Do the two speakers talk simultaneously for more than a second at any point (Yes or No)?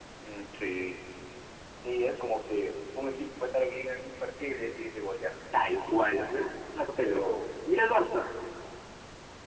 No